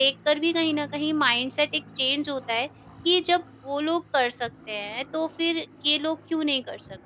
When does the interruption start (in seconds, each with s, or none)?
none